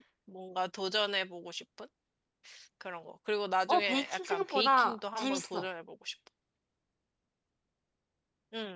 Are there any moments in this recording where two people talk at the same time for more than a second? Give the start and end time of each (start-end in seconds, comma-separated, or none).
3.7-5.7